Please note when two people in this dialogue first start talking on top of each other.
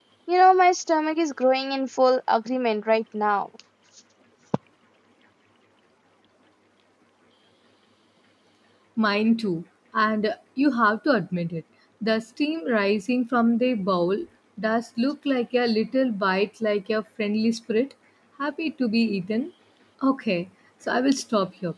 none

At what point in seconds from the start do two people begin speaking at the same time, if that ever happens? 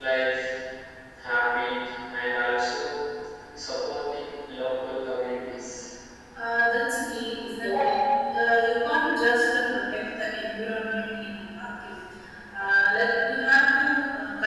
none

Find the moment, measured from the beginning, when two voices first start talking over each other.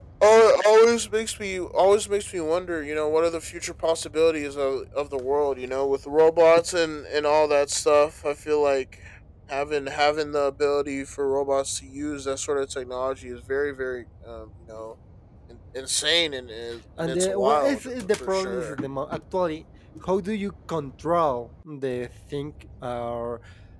17.0 s

